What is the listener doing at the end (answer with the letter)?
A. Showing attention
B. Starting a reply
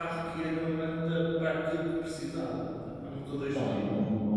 B